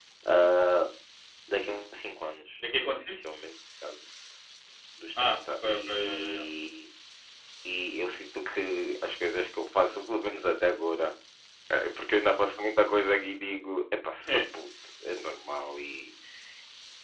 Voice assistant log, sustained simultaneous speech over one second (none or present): present